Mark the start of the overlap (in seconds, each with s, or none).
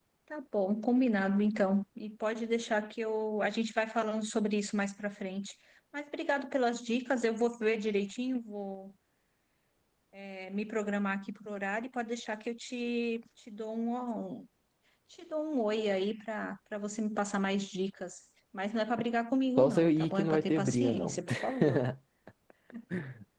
19.6 s